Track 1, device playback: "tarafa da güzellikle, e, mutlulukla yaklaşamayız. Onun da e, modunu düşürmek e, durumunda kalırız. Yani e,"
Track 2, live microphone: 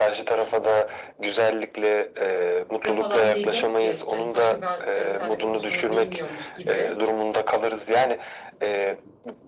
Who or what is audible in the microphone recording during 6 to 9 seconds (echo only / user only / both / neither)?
both